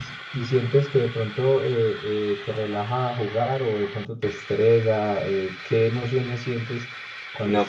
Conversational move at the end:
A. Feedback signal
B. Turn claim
B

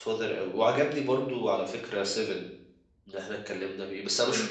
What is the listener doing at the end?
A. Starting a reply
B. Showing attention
A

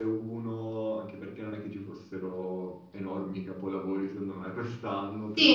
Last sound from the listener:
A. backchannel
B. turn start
B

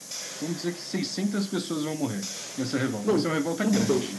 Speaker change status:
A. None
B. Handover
B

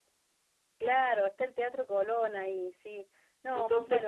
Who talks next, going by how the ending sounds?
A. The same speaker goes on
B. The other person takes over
B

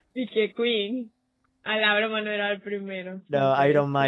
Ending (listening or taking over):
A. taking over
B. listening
A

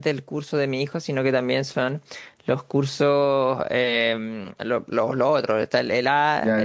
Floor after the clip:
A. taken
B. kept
A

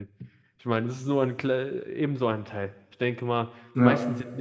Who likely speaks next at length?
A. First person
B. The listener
A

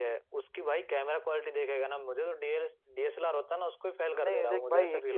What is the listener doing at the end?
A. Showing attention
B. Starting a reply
B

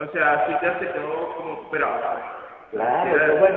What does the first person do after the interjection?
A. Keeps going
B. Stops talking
B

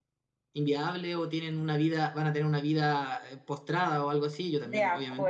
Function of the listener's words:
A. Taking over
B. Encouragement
A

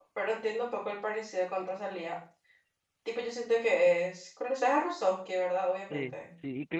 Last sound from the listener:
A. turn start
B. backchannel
A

